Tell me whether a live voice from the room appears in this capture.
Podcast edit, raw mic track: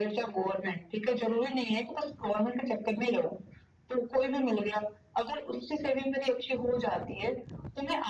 No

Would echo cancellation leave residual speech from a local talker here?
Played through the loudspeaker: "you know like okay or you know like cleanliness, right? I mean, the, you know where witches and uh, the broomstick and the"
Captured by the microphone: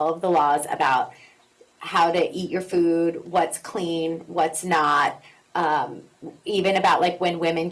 Yes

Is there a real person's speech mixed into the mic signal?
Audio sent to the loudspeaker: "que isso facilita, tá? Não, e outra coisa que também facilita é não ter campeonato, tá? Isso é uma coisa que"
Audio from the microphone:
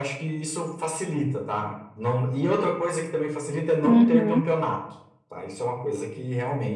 Yes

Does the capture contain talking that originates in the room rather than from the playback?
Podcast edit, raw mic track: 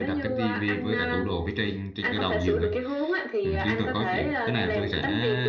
Yes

